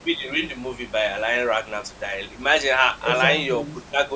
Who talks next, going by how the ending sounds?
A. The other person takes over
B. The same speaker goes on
B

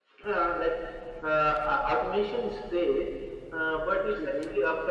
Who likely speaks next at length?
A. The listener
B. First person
B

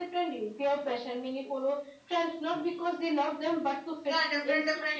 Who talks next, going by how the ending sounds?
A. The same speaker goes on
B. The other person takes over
B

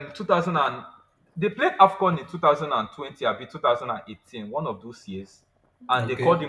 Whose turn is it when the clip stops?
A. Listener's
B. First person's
B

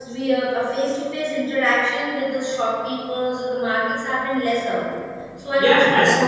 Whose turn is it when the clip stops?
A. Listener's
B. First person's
A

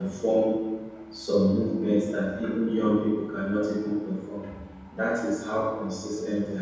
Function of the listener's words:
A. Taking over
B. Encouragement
B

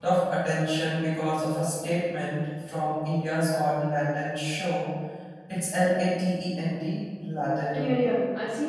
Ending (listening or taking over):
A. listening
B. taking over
B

